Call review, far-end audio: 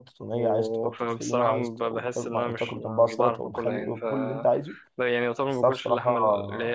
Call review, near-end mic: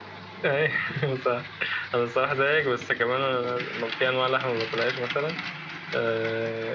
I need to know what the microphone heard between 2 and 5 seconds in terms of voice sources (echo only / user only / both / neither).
user only